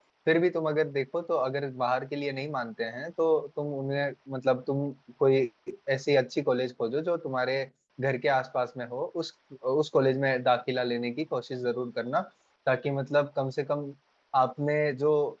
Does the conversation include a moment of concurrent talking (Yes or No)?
No